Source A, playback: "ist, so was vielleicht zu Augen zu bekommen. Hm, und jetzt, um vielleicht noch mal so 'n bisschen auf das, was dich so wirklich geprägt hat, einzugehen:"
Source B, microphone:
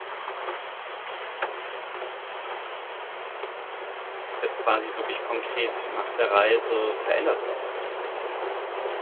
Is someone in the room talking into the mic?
Yes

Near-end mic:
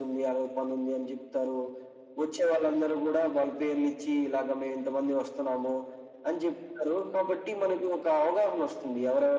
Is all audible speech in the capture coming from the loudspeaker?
Yes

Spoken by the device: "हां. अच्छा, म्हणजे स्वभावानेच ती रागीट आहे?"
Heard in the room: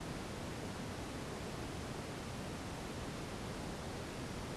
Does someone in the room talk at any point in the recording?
No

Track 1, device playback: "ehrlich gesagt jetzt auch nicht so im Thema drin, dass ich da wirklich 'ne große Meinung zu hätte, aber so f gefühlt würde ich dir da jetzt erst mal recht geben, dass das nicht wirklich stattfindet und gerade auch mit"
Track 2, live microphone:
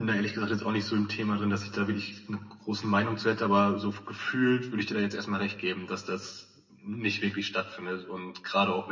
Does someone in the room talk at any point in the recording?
No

